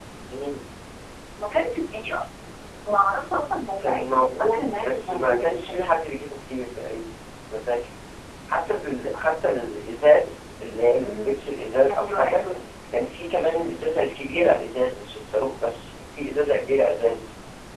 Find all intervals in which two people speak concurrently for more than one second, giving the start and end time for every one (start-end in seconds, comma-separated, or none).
3.8-5.9